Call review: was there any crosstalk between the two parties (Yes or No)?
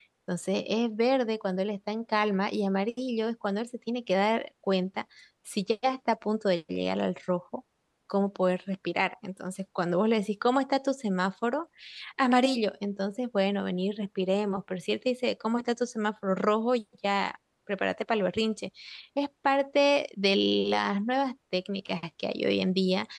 No